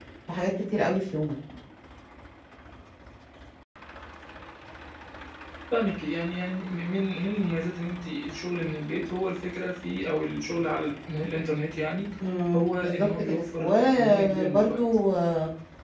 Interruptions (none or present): present